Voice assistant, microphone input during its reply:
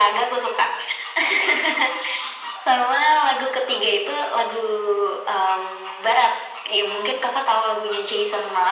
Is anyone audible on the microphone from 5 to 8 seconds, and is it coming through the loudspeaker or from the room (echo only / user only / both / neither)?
echo only